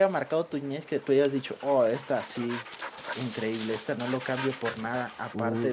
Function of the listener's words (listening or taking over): taking over